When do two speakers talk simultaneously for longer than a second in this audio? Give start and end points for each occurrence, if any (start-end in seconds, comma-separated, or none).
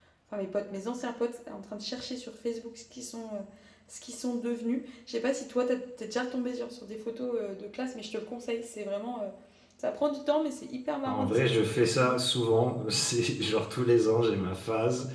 11.1-12.3